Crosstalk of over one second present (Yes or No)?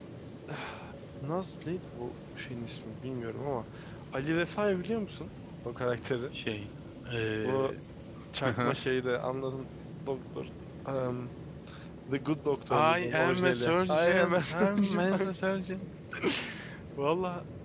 Yes